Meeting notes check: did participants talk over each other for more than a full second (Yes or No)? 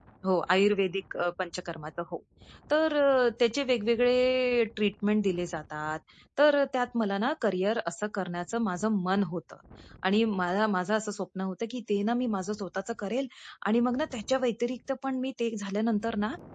No